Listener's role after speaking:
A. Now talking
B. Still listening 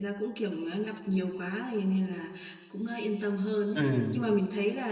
B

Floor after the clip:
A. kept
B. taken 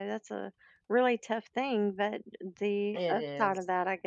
A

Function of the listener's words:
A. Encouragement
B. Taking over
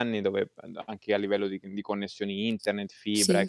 A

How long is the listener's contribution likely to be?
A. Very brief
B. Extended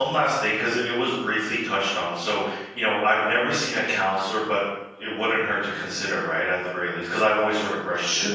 B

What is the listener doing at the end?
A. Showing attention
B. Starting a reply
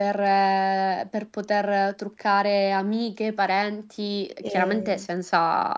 A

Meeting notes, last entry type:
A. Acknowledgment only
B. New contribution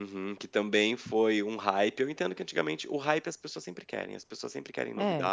A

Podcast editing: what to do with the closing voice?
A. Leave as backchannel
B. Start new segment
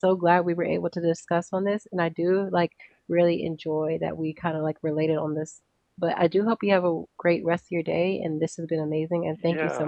B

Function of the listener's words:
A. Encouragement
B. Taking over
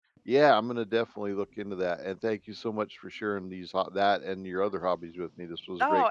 B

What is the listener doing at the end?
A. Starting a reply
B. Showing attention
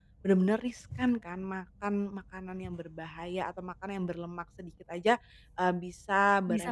B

